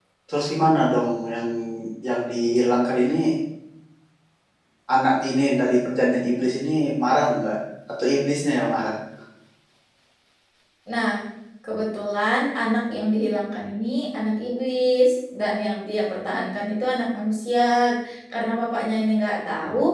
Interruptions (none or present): none